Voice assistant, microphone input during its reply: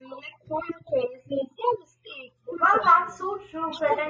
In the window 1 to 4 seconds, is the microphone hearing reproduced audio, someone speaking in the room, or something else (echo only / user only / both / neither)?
both